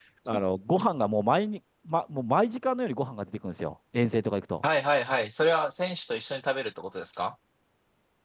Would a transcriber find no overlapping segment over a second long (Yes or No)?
Yes